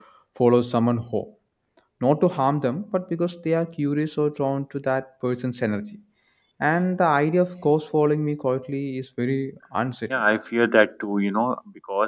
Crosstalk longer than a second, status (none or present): none